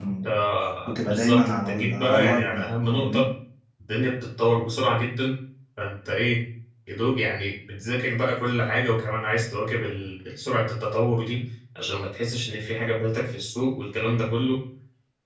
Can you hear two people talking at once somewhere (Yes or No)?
Yes